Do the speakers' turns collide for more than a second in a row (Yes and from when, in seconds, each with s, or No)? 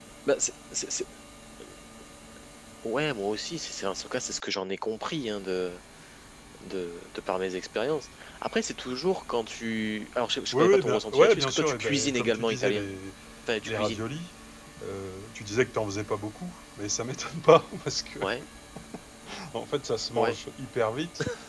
Yes, from 10.5 s